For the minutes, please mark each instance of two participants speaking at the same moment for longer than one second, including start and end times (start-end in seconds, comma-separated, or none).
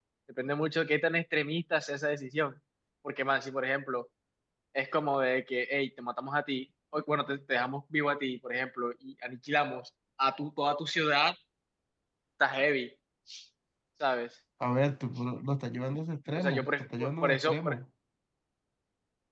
16.4-17.8